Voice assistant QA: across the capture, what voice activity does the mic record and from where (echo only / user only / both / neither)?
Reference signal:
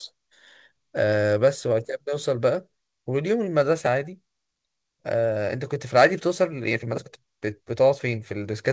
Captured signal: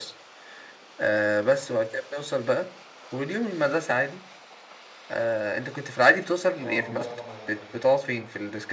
both